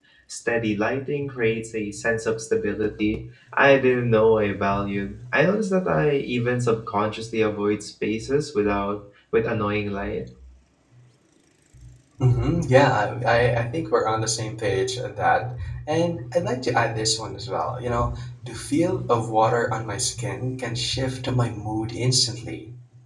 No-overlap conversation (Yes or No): Yes